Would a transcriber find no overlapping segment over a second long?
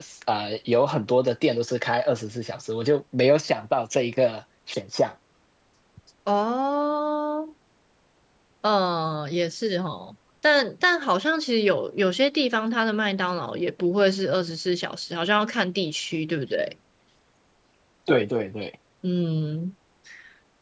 Yes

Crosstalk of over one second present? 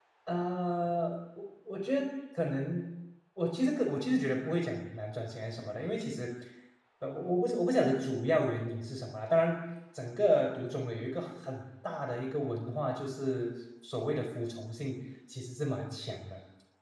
No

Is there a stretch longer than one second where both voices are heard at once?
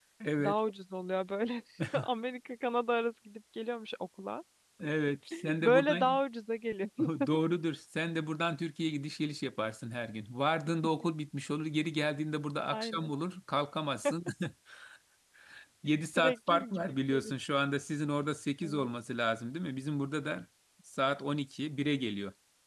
Yes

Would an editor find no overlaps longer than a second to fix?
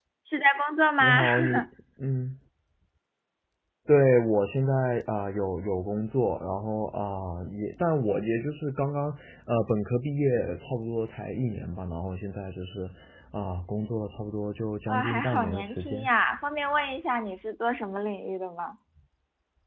No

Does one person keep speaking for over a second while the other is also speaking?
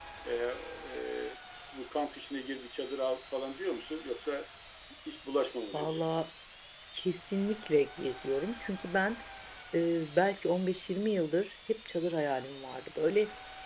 No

